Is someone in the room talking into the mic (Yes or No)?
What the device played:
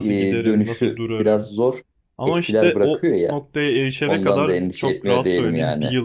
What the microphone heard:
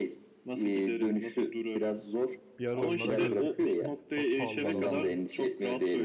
Yes